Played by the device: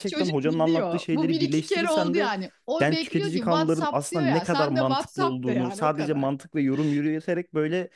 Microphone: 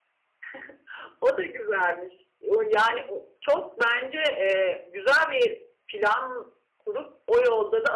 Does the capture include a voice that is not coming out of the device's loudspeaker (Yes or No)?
Yes